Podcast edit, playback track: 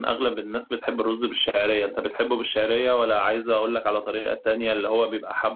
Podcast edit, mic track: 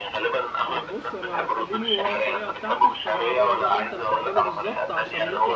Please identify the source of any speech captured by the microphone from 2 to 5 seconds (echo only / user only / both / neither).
both